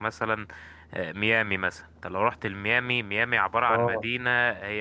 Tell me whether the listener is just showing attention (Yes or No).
Yes